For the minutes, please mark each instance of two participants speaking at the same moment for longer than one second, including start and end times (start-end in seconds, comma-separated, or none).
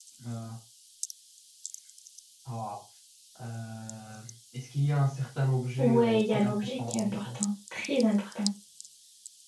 5.8-7.4